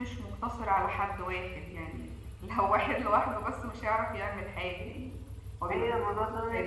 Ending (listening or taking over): taking over